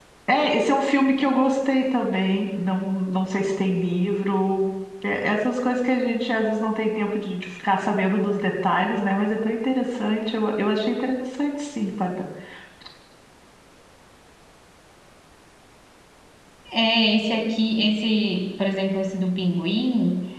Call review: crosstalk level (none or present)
none